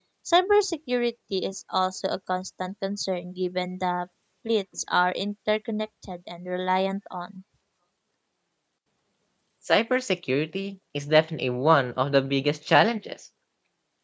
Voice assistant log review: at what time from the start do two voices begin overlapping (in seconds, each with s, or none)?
none